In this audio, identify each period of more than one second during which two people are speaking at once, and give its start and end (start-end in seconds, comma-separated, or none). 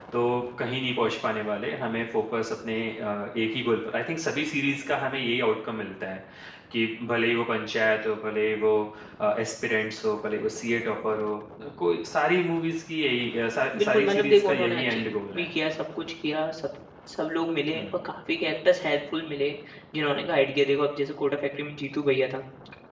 13.8-15.5